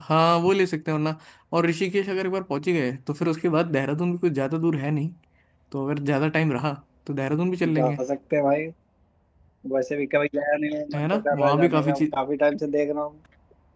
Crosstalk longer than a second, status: present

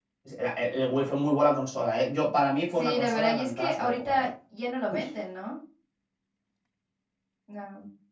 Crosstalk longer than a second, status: present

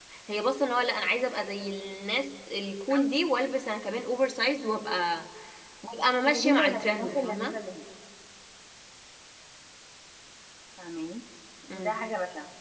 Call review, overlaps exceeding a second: present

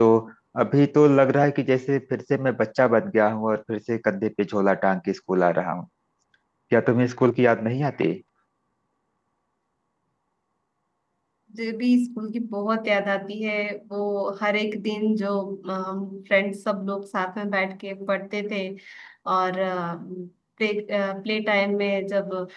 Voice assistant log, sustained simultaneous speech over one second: none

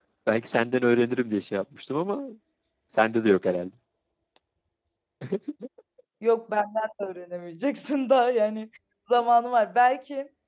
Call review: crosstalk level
none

